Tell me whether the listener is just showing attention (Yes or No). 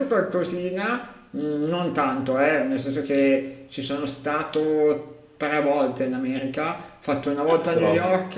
Yes